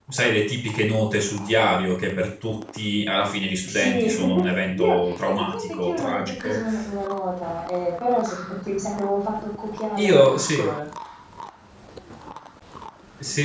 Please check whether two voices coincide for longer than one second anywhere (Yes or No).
Yes